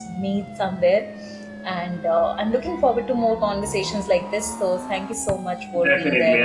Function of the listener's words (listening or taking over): taking over